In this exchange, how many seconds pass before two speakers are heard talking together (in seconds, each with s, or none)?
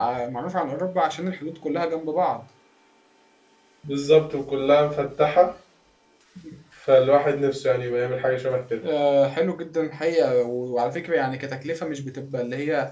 none